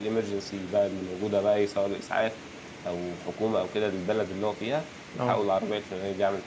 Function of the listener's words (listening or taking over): listening